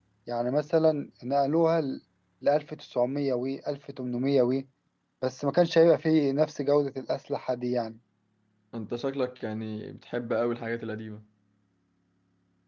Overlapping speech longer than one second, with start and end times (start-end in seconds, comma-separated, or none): none